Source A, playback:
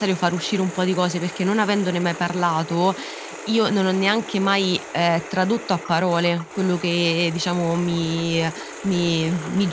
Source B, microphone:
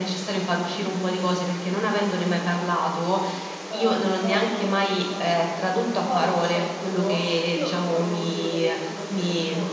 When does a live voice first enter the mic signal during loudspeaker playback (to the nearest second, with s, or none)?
4 s